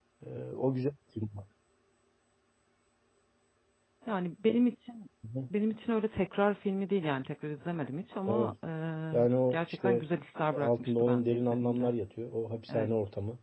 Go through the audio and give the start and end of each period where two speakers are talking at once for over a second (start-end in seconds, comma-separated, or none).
10.6-11.9